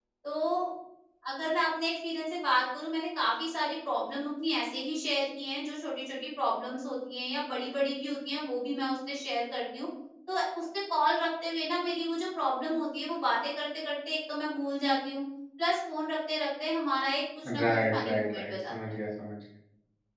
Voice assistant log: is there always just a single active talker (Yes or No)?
No